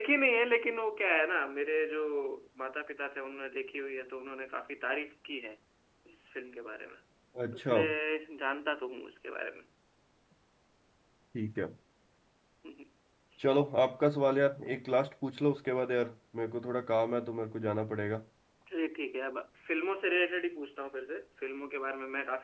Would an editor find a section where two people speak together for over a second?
No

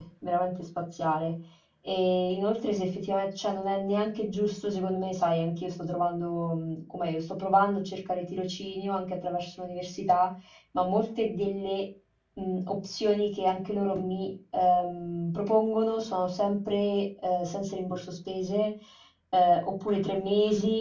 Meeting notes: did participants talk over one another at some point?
No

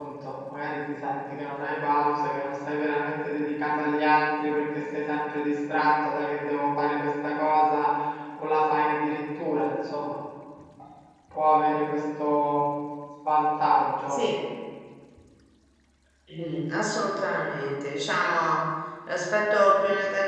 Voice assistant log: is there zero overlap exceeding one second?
Yes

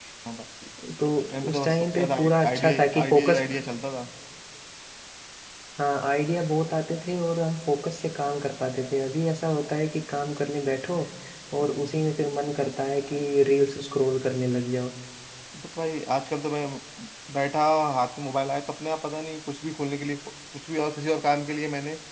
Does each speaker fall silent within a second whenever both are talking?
No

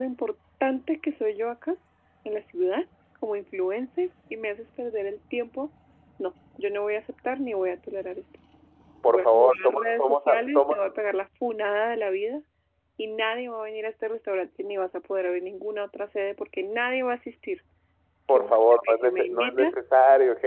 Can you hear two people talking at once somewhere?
Yes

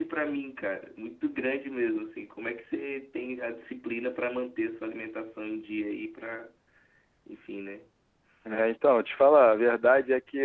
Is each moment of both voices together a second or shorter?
Yes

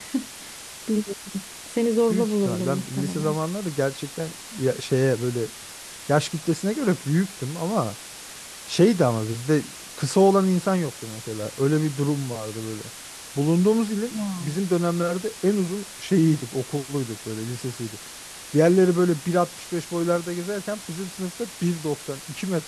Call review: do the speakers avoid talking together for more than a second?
No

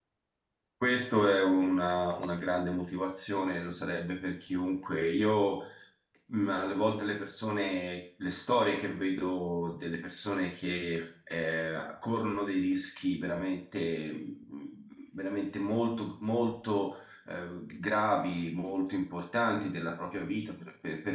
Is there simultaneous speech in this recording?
No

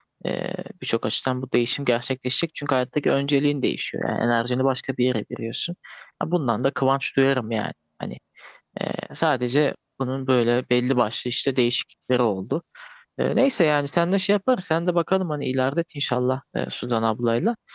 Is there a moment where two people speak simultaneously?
No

